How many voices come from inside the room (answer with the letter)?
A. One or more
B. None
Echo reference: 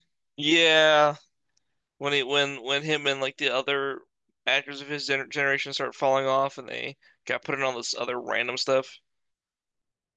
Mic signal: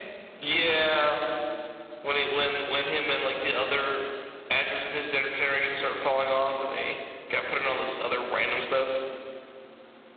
B